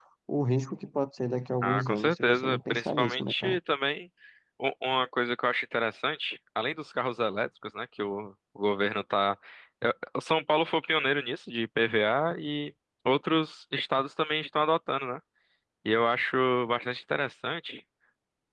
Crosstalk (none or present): present